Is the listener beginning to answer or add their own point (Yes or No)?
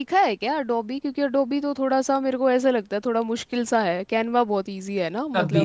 Yes